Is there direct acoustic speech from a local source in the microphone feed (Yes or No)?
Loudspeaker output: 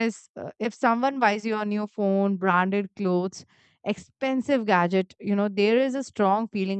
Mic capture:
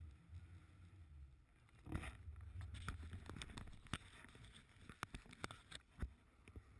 No